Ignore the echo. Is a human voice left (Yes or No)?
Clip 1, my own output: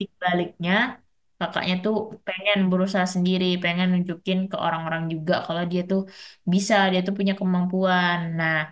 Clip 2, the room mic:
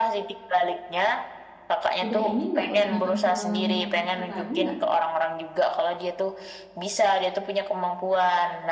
Yes